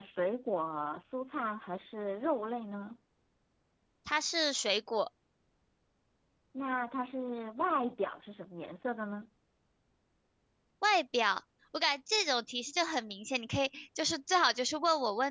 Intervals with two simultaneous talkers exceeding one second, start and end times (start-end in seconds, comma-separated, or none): none